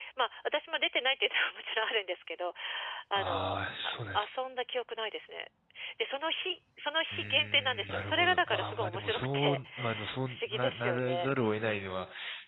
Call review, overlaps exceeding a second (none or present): present